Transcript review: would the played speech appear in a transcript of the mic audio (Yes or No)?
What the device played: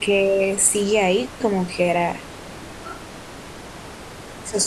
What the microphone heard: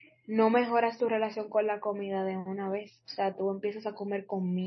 No